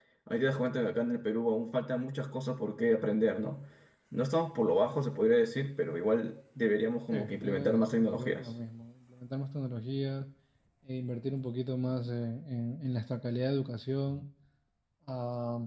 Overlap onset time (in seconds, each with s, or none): 7.1 s